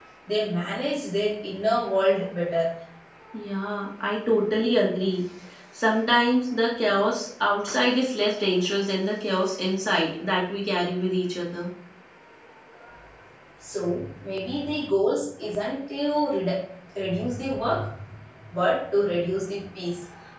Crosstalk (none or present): none